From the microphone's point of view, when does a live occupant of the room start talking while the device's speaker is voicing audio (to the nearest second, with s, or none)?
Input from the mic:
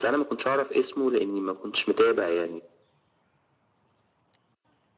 none